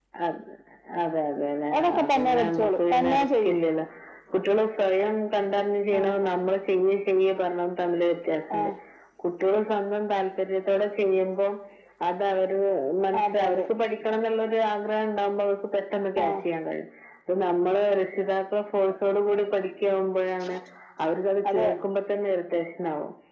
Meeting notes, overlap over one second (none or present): present